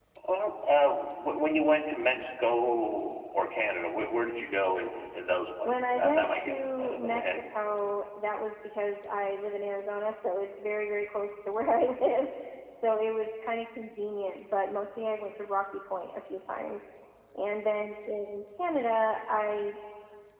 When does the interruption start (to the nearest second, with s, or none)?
6 s